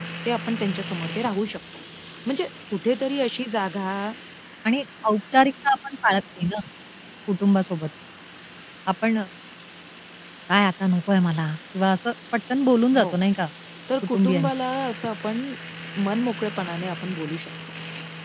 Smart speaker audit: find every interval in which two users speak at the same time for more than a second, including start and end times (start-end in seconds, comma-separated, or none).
none